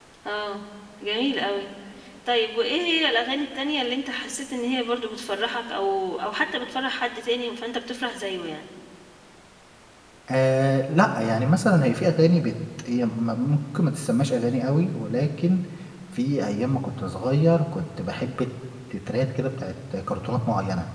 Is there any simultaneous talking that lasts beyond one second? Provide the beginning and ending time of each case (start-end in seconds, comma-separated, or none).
none